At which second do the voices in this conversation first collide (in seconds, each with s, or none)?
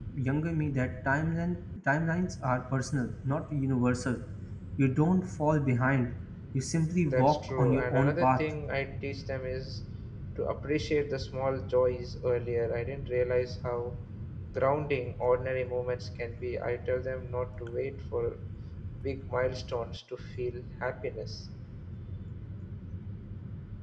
7.0 s